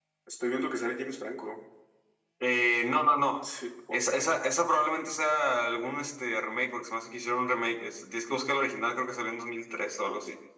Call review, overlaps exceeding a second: none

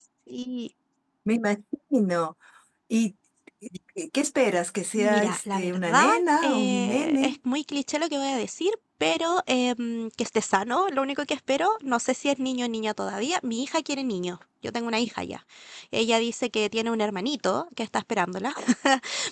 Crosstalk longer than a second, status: present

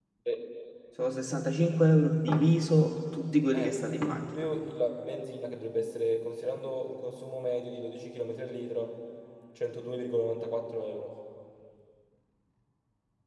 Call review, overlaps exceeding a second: none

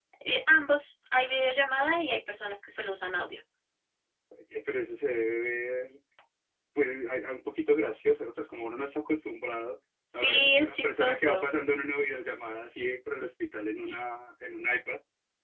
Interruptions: present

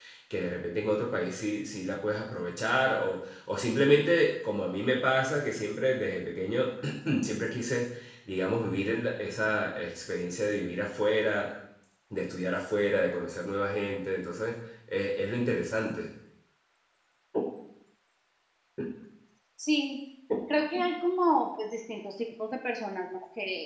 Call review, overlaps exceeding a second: none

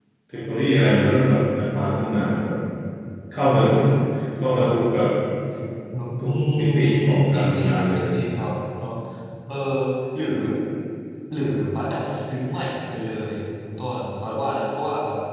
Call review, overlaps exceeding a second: present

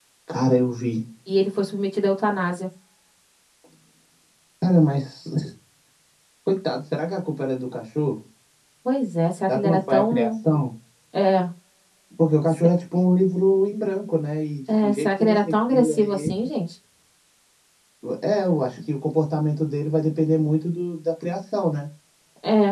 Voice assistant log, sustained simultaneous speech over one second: present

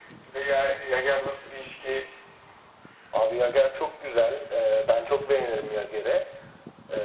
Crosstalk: none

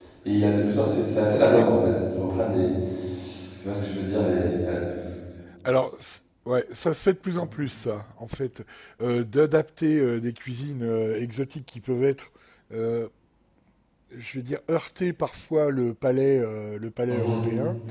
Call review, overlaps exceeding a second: none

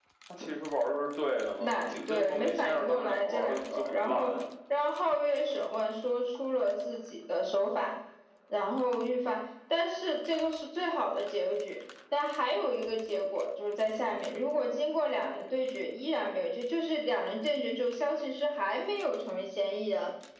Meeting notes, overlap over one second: present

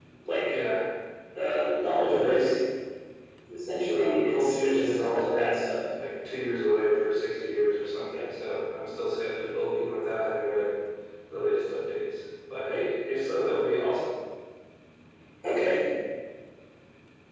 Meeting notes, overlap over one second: present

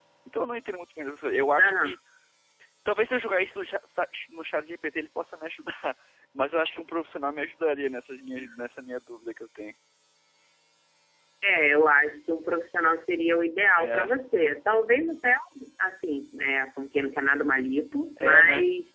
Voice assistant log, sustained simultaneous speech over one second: none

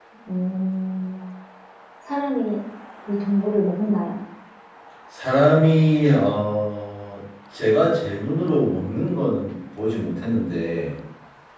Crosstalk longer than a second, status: none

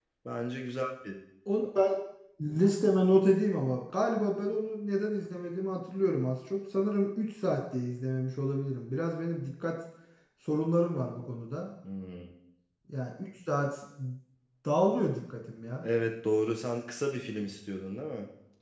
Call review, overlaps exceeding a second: none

